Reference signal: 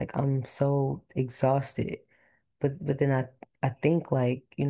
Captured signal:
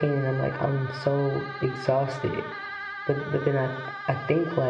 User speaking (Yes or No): No